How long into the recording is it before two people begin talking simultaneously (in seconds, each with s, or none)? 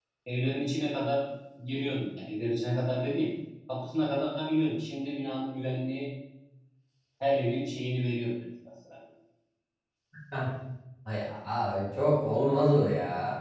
none